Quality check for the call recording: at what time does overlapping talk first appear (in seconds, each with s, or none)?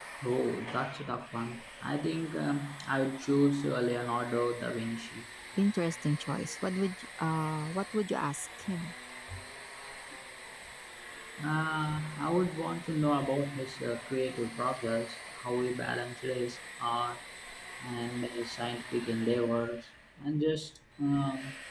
none